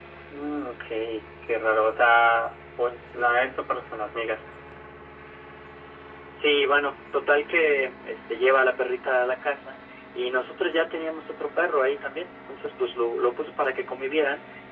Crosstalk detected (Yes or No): No